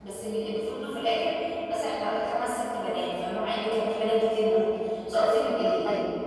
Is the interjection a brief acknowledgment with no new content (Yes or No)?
Yes